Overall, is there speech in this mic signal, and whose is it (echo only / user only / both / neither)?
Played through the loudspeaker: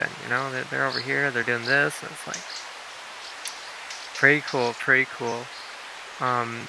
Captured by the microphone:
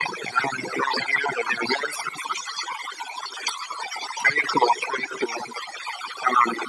echo only